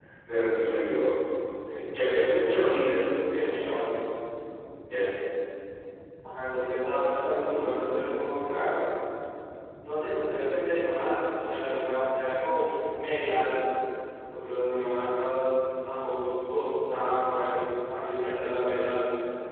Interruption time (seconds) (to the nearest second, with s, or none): none